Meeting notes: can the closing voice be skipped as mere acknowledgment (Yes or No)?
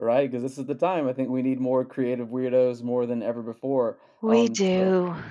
Yes